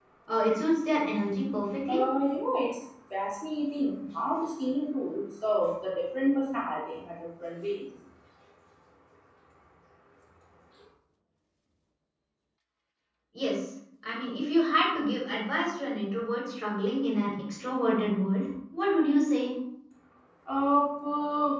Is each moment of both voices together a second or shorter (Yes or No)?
Yes